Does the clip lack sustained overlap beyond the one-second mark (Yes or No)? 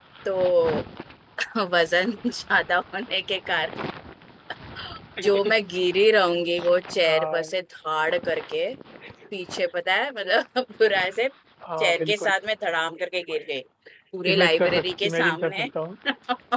No